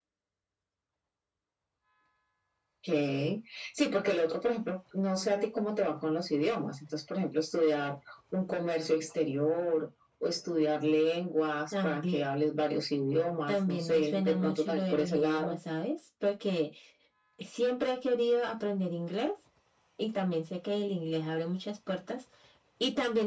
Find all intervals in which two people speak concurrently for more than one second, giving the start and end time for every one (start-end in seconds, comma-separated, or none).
13.5-15.6